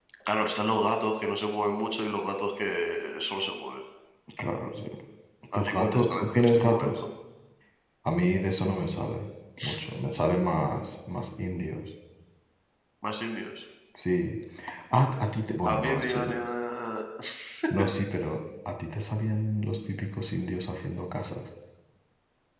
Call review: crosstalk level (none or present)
present